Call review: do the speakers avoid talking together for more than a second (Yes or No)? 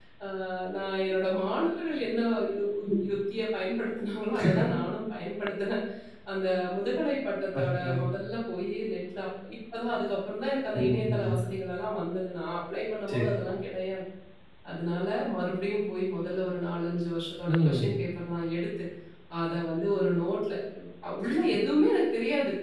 Yes